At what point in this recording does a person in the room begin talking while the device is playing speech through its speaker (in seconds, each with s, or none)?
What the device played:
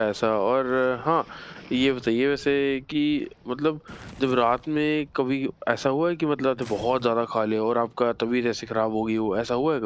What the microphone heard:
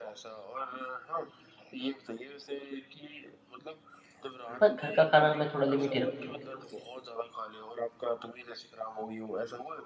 4.6 s